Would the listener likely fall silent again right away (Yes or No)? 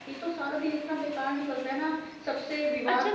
No